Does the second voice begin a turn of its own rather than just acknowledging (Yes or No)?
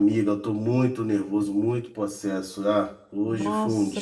Yes